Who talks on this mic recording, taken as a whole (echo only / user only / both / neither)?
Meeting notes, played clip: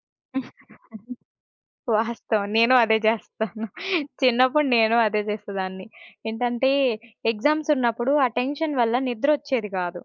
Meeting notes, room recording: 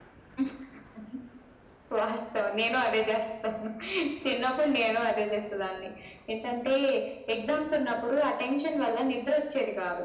echo only